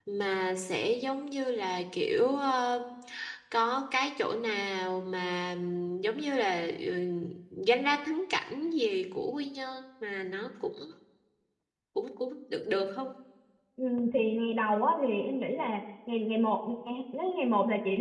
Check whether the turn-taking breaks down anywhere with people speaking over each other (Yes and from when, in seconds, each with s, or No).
No